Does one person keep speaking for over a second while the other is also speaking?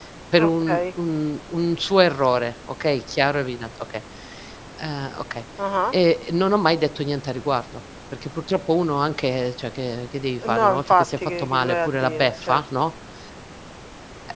Yes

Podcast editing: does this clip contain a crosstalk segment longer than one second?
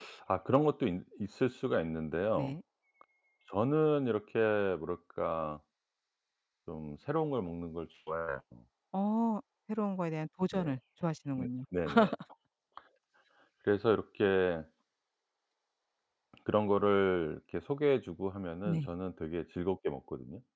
No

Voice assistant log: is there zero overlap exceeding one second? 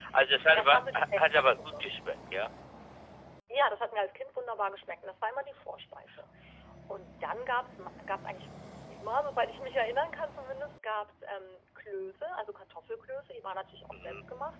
No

